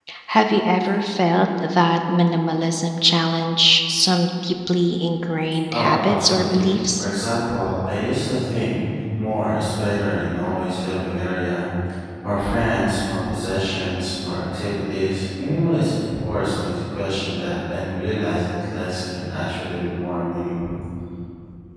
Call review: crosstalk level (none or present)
present